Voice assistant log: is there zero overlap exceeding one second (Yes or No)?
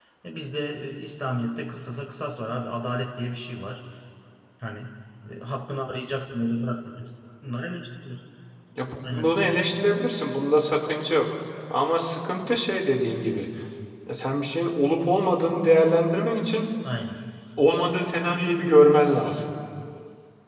Yes